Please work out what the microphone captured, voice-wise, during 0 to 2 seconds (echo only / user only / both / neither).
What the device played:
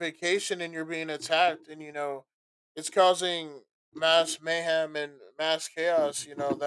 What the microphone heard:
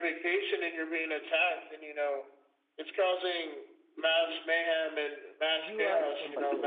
echo only